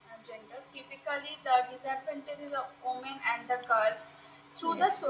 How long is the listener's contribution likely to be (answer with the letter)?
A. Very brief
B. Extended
A